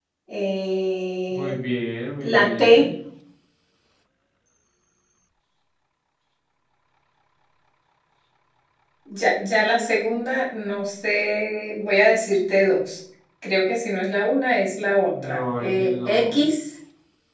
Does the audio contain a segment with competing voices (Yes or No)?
Yes